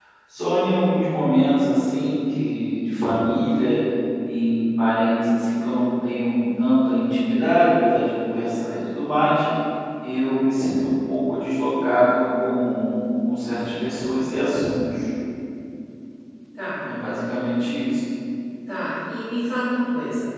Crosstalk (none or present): none